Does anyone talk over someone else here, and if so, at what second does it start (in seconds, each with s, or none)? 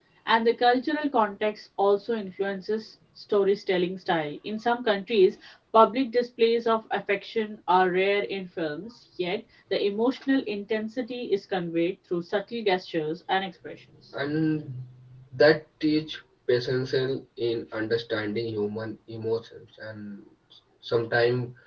none